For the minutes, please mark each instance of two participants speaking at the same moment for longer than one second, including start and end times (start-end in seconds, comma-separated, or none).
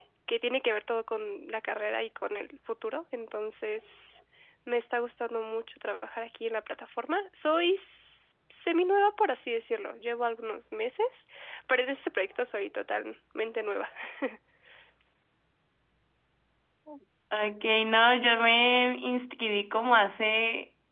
none